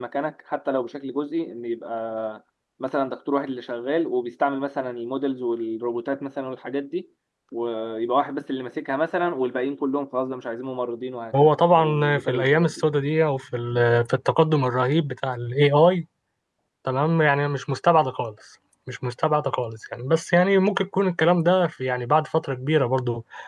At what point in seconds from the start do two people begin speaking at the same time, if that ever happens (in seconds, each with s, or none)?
11.3 s